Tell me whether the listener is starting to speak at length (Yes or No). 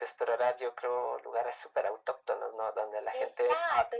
Yes